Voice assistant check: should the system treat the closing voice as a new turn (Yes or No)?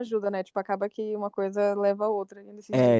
Yes